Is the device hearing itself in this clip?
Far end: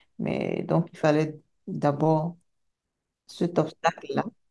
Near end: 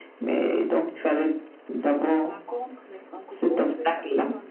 Yes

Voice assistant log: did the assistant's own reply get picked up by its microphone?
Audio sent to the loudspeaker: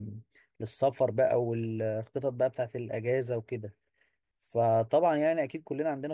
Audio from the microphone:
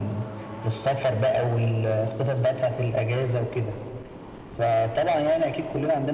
Yes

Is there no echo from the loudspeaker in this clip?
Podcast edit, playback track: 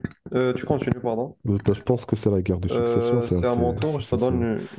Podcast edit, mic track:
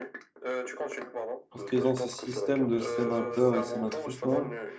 No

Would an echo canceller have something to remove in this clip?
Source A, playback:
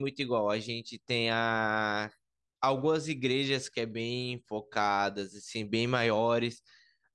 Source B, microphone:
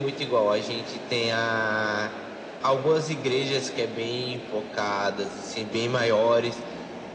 Yes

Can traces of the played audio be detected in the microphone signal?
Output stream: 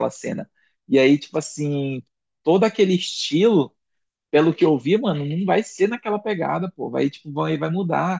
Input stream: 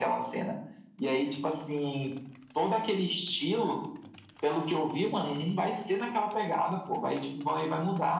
Yes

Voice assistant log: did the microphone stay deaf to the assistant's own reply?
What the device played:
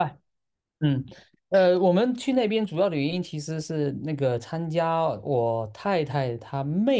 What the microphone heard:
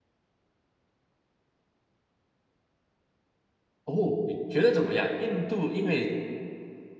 Yes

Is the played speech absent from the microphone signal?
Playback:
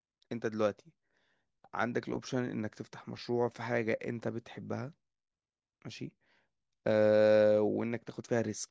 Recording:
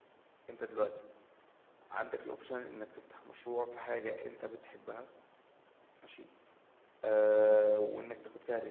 No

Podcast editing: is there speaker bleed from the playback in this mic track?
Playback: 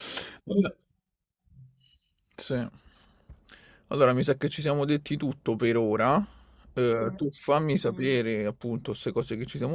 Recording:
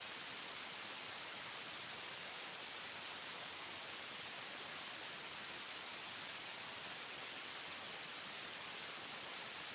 No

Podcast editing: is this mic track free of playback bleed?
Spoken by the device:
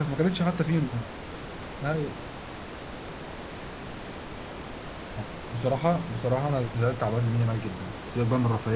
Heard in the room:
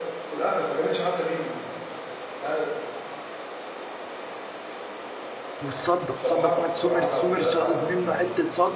No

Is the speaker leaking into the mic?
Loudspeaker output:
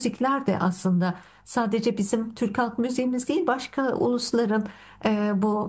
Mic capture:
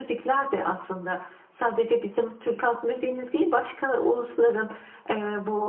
Yes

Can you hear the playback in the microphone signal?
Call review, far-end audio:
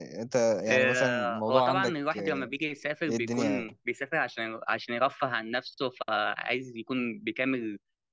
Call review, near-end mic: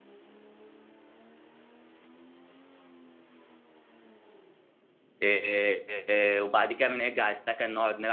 No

